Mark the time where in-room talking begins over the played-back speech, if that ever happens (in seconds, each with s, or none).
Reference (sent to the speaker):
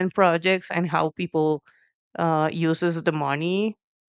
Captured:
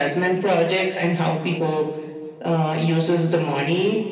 none